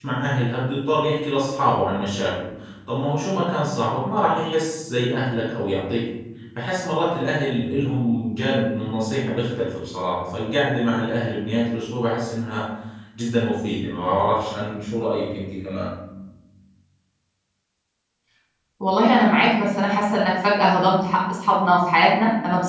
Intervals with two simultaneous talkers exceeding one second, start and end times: none

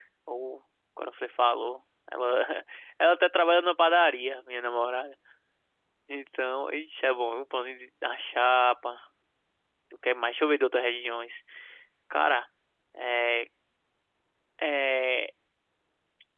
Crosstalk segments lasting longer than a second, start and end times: none

